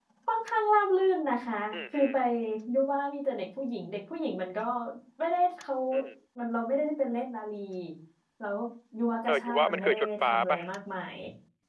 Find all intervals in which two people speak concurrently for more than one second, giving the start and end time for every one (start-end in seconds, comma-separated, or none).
9.3-10.6